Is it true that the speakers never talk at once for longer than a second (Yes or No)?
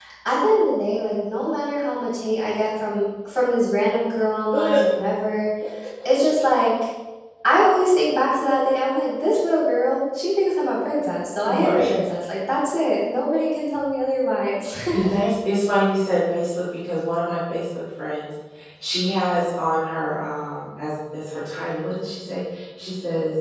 Yes